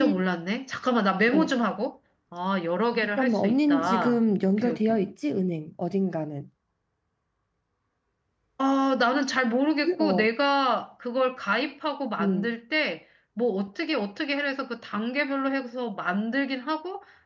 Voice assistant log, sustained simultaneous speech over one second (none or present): present